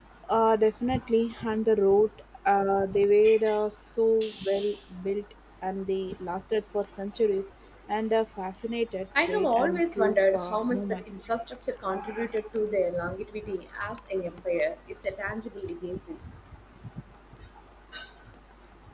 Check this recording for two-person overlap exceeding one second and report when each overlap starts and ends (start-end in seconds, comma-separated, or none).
9.2-11.0